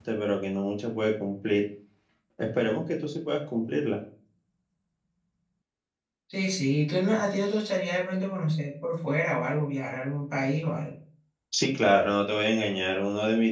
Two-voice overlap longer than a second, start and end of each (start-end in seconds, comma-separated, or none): none